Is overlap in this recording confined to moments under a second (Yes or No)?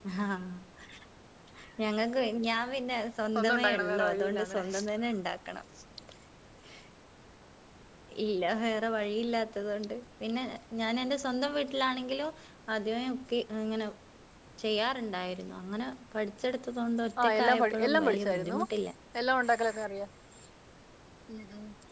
No